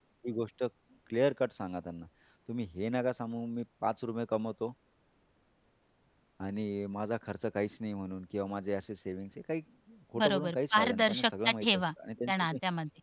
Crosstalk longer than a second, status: present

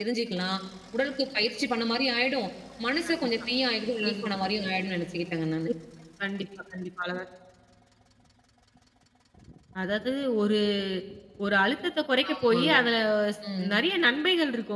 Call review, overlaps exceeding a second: none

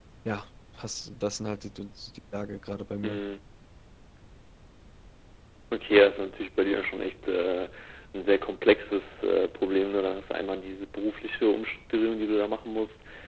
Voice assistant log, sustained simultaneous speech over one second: none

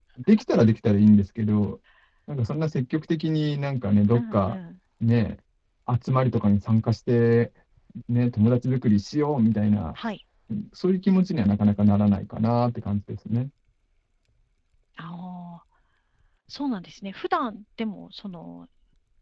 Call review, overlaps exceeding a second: none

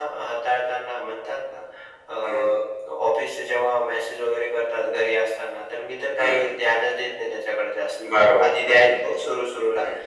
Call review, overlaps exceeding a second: none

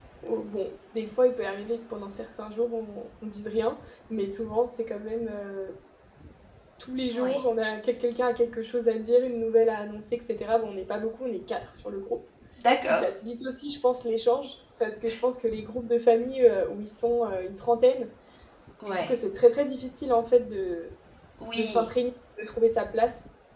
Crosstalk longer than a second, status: none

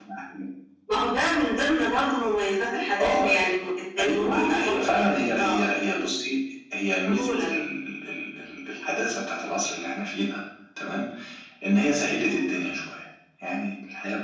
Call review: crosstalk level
present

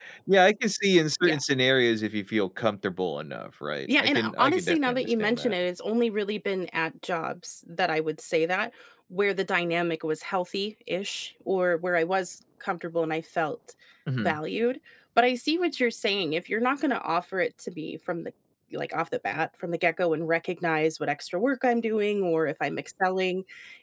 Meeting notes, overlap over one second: present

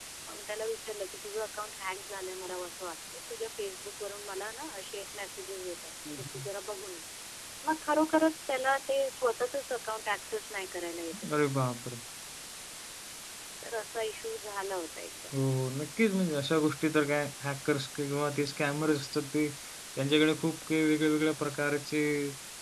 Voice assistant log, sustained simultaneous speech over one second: none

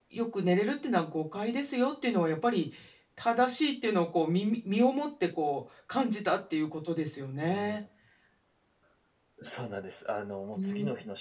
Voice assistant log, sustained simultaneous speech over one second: none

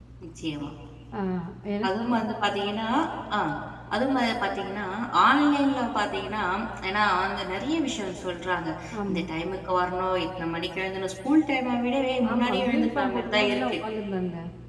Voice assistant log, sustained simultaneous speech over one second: present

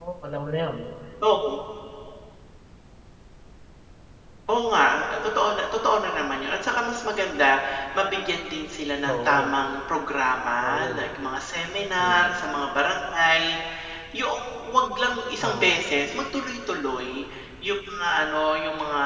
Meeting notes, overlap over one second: none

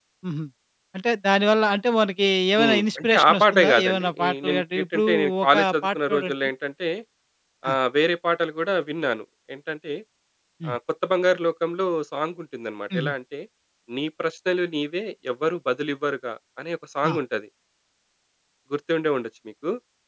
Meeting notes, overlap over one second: present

